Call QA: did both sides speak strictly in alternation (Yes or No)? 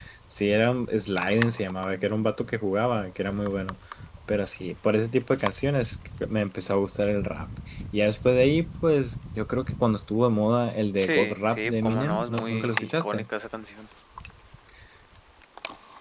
No